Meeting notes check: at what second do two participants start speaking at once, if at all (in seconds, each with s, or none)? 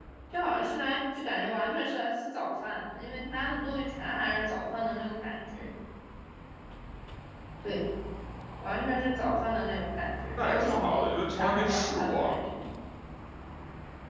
10.4 s